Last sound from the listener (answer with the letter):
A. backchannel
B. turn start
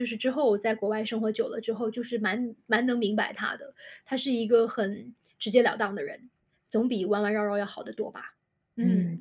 B